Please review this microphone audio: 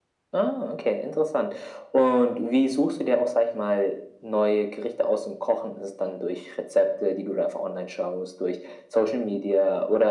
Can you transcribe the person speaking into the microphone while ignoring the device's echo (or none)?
none